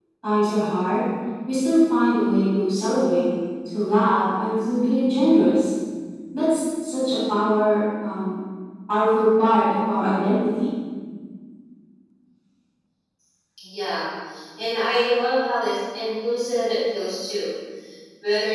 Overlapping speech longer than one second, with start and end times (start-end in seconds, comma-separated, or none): none